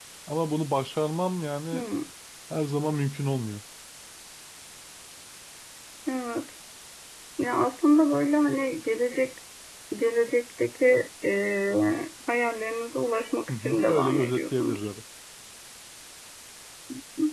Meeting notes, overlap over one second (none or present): present